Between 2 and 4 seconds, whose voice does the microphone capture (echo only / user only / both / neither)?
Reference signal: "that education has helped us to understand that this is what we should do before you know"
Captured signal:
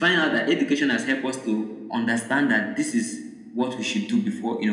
echo only